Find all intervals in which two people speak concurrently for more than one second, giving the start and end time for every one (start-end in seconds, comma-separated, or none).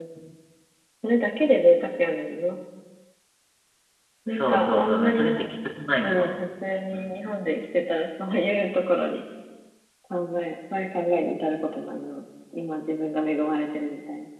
4.3-5.5